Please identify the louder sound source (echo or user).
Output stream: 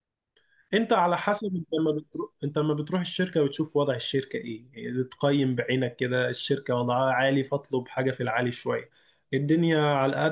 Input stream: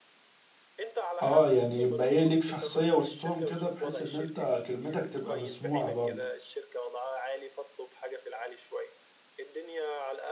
user